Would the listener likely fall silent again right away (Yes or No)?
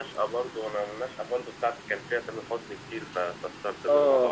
No